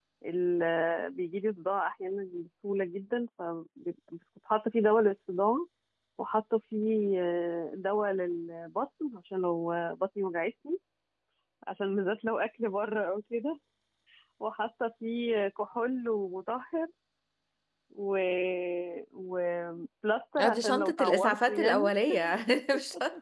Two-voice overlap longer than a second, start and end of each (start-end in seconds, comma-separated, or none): 20.4-21.9